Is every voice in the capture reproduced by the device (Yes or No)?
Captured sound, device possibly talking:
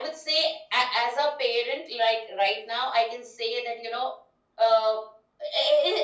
Yes